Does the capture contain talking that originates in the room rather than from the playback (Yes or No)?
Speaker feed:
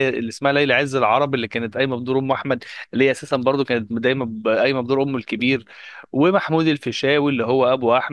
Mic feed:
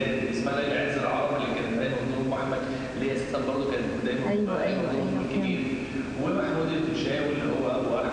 Yes